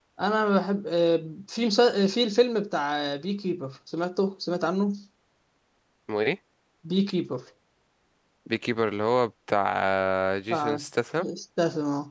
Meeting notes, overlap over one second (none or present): none